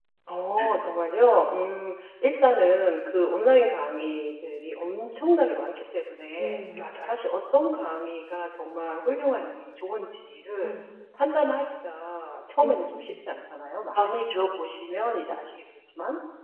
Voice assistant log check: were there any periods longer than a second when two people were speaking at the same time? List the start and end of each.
none

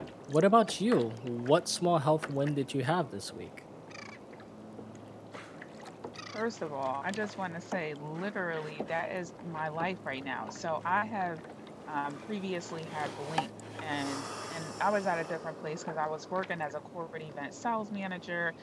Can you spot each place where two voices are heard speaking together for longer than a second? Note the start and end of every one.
none

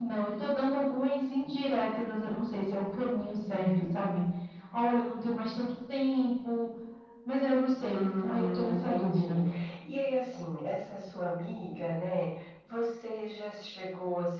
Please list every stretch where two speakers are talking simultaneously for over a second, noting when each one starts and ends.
7.9-9.4

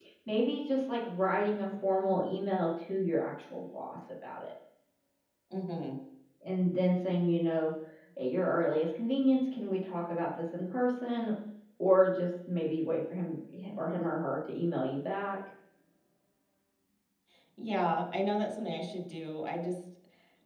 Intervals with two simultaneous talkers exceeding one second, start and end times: none

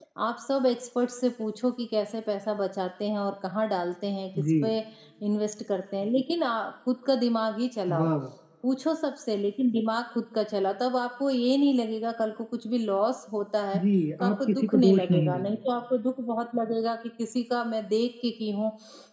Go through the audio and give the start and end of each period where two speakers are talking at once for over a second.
14.2-15.6

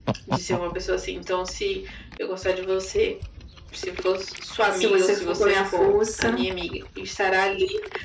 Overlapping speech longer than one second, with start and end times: 4.7-6.4

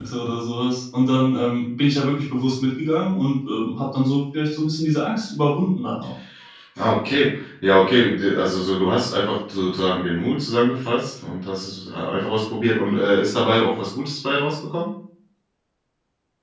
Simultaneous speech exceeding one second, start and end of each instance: none

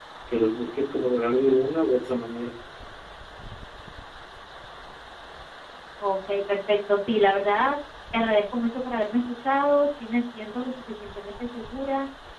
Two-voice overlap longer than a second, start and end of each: none

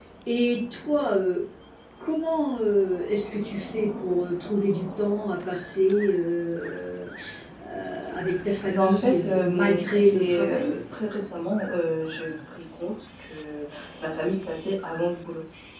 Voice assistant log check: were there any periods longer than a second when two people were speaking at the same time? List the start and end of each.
8.7-10.7

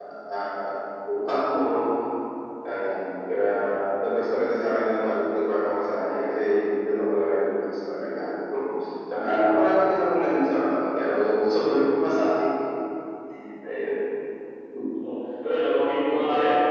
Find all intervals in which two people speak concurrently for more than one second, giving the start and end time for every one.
none

